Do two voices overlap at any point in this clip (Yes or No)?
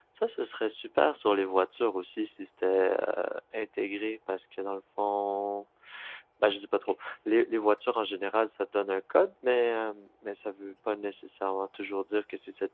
No